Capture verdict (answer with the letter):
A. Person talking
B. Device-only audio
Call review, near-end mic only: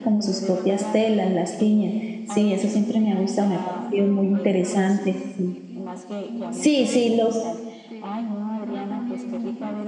A